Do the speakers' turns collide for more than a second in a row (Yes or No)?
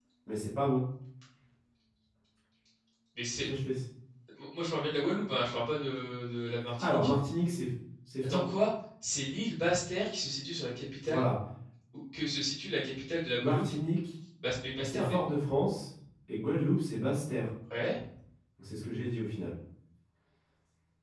No